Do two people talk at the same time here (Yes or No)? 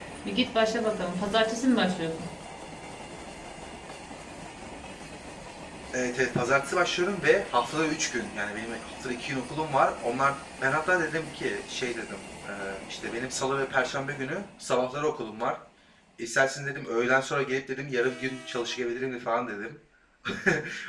No